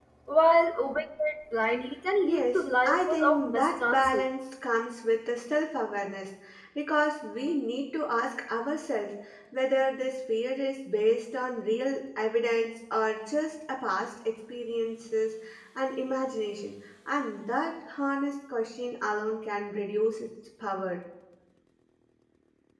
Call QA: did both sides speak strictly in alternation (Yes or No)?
No